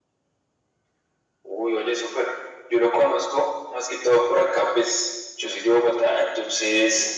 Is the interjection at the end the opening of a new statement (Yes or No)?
No